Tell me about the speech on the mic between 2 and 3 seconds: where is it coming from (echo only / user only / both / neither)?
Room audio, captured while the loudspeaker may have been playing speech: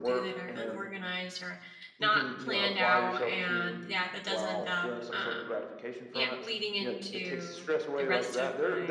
both